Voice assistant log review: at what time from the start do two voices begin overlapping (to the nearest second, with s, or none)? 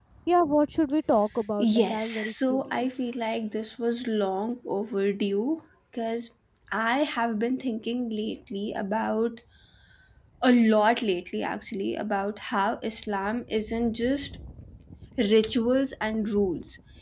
2 s